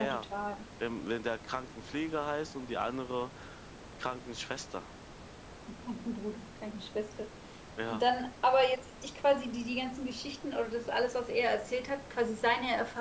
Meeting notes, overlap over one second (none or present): none